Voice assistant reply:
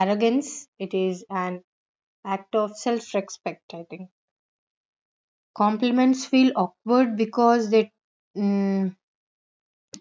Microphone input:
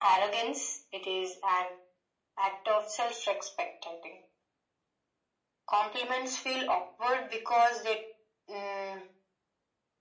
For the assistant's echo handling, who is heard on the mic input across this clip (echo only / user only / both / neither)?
echo only